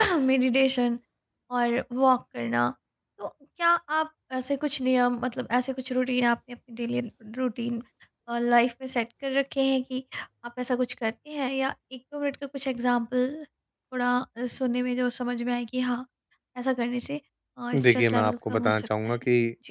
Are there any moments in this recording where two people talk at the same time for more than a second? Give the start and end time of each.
17.8-19.1

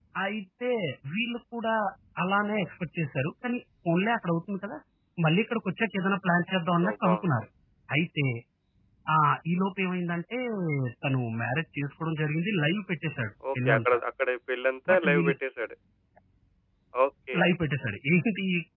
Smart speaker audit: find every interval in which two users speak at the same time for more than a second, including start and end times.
none

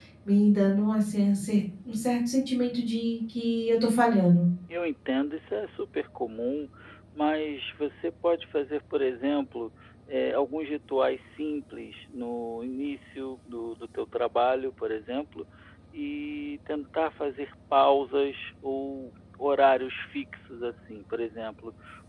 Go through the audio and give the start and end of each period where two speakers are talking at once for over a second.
none

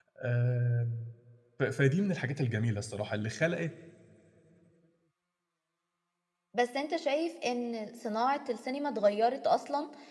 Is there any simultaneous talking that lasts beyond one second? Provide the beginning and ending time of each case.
none

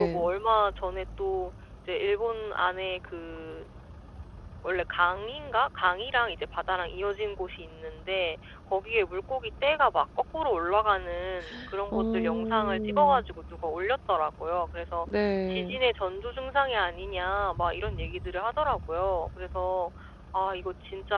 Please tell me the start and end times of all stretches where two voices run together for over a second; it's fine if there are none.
11.9-13.2

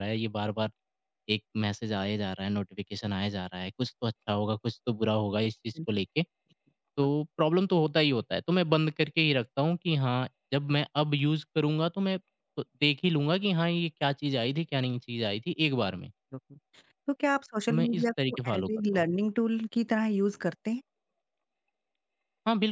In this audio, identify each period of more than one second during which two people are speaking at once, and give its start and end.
17.7-19.1

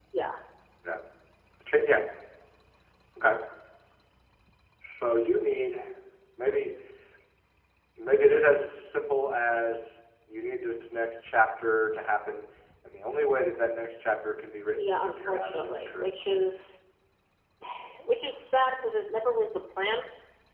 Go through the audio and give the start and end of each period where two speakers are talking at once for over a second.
14.8-16.6

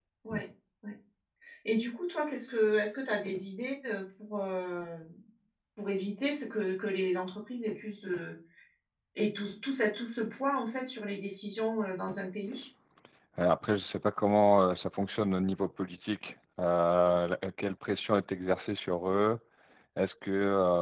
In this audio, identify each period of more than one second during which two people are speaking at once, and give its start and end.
none

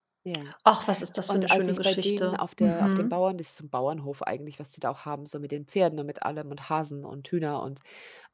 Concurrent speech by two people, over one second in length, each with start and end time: 1.3-3.2

